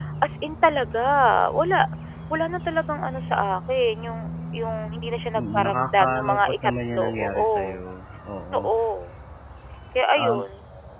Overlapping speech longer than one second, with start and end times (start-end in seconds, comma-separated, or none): 5.4-7.8